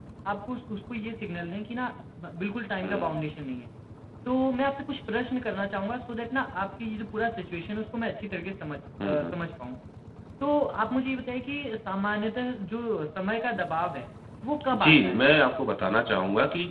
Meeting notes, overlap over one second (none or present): none